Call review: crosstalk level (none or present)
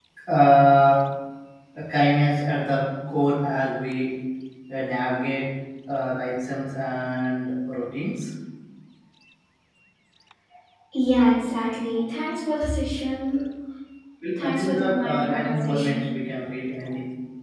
present